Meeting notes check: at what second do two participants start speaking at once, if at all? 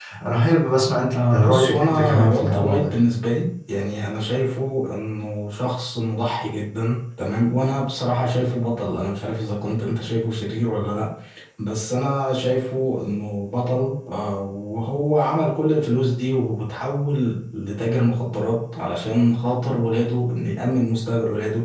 1.1 s

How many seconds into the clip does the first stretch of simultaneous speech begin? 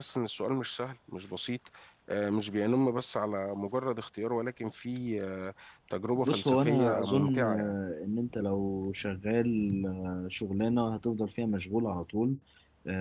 6.2 s

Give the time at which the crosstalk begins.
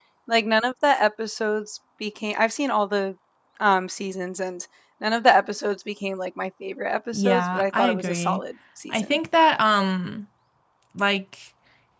7.1 s

